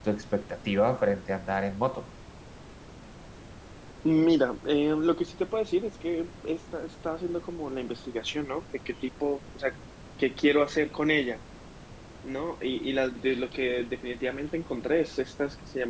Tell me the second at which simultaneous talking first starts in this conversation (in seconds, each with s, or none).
none